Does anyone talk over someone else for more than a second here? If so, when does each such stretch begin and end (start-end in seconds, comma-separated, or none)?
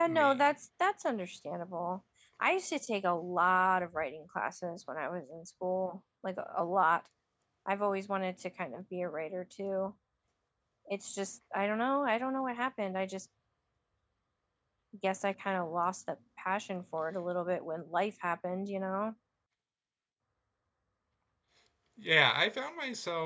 none